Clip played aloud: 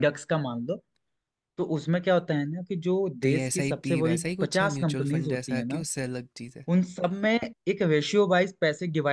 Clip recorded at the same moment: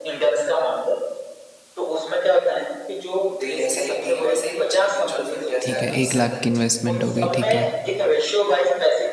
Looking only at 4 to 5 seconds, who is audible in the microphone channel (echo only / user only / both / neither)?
echo only